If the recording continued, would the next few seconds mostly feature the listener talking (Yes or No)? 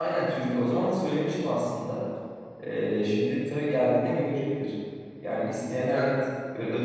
No